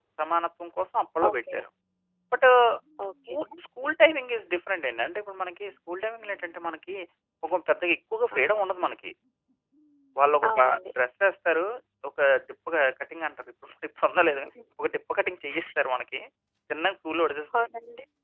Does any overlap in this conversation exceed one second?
No

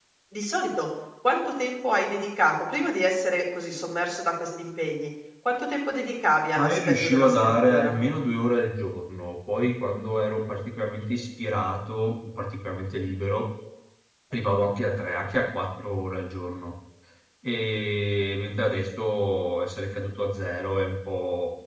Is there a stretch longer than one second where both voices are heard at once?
Yes, from 6.6 s

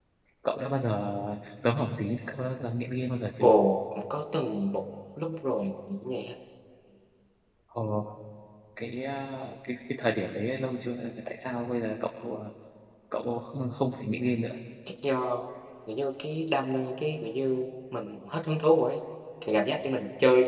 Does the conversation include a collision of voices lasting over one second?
No

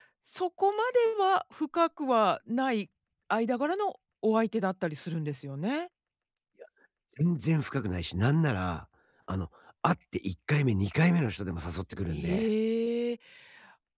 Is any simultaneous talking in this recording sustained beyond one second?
No

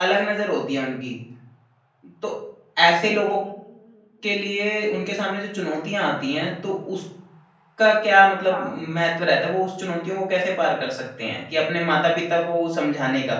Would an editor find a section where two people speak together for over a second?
No

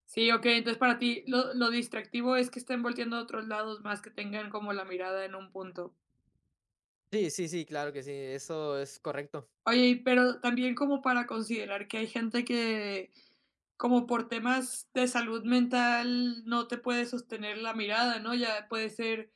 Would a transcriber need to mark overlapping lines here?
No

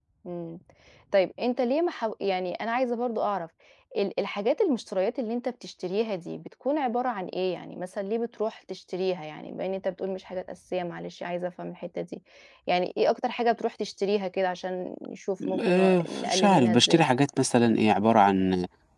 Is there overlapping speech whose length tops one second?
Yes, from 15.4 s

